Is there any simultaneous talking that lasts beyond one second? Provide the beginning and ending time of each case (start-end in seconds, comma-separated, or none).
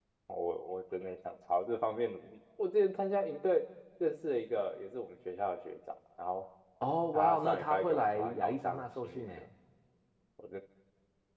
7.1-9.4